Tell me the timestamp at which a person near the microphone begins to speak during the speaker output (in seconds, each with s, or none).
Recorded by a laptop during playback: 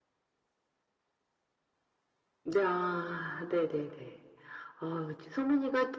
none